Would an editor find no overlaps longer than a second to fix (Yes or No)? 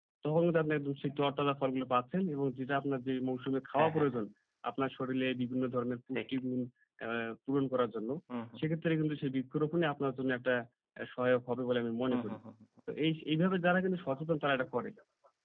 Yes